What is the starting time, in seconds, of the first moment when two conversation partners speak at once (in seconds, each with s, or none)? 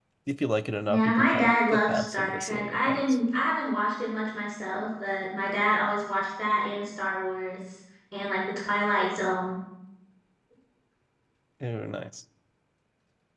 0.9 s